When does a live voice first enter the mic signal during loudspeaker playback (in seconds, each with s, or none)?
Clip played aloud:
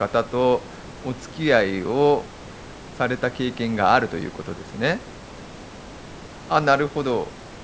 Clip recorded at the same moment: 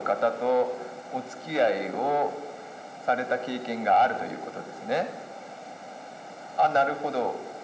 none